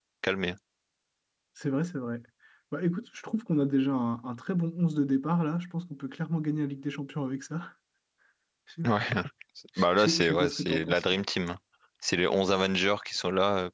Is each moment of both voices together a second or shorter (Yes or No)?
No